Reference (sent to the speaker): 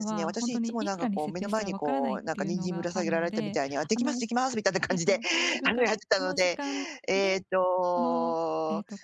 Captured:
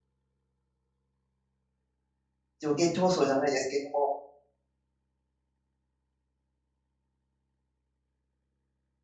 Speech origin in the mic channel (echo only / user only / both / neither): user only